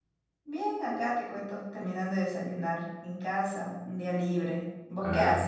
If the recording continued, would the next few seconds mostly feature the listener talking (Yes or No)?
Yes